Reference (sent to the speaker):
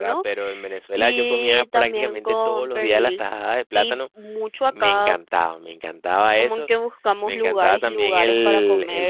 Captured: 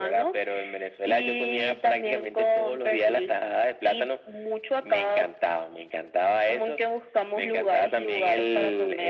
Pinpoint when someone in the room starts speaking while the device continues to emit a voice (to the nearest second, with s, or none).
none